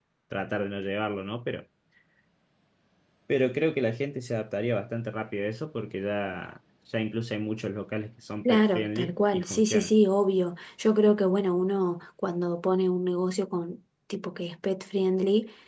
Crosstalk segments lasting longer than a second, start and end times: 8.4-9.9

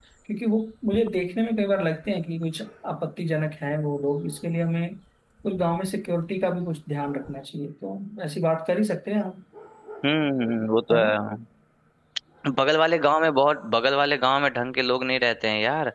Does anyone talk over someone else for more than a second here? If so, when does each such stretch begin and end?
none

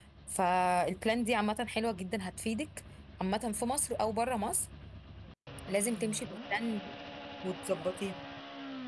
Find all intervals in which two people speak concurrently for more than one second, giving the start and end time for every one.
none

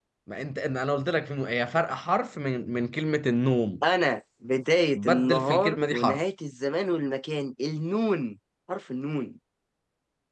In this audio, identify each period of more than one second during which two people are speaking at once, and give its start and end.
5.0-6.2

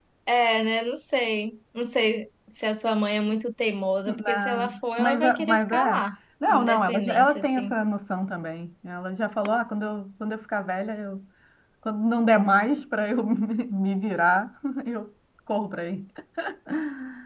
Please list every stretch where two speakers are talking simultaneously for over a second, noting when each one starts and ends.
4.1-6.0, 6.5-7.7

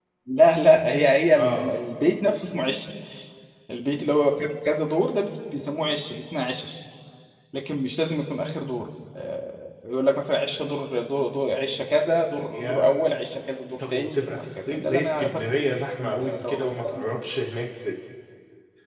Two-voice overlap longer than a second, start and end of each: 13.8-15.4, 16.0-17.3

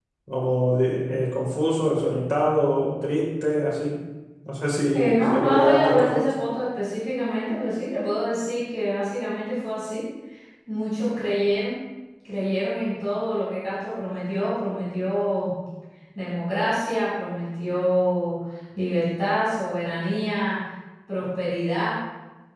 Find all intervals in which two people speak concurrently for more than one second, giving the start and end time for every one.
4.9-6.3

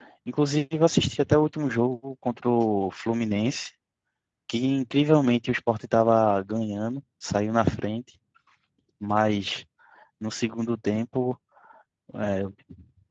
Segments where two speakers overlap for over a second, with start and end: none

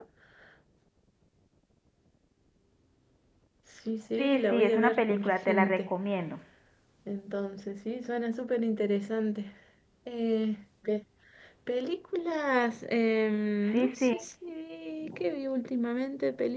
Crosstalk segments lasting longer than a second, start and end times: 4.2-5.9

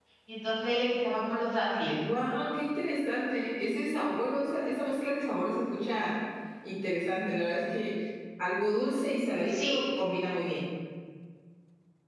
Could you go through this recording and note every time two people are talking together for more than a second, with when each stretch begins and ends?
none

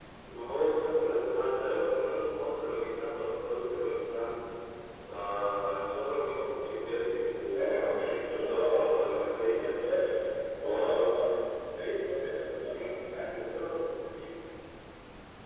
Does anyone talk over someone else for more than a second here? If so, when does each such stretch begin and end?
7.5-9.1

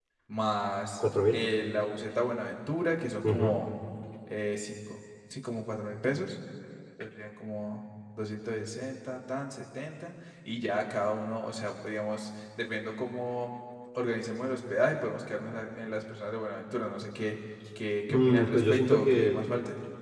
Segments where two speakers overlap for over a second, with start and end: 18.1-19.4

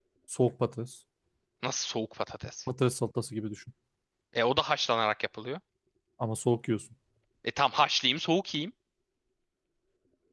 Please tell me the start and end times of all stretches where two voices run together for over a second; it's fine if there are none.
none

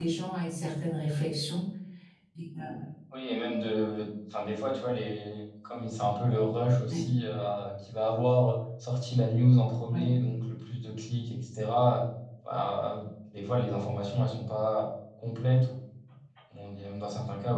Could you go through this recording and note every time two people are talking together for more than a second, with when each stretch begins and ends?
none

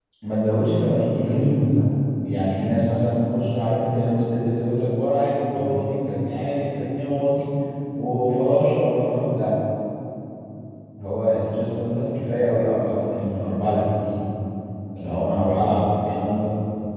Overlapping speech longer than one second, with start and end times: none

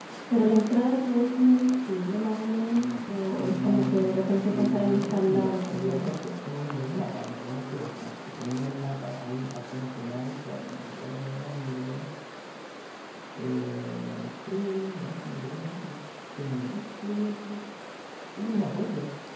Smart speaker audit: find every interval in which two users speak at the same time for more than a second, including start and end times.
3.4-6.1

